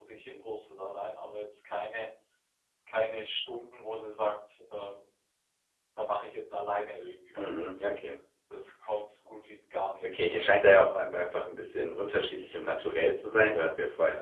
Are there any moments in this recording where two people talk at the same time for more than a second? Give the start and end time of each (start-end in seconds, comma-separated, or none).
none